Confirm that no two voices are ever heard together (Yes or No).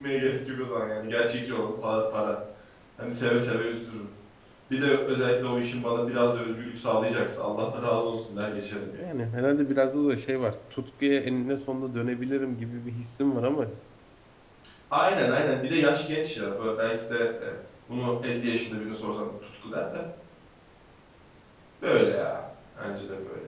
Yes